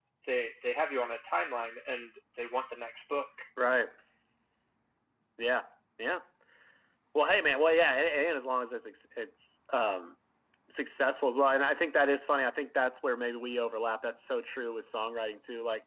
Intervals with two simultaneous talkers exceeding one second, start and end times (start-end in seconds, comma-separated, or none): none